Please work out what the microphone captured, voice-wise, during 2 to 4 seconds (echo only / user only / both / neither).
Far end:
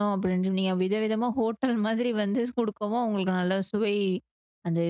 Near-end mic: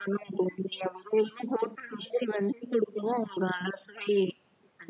echo only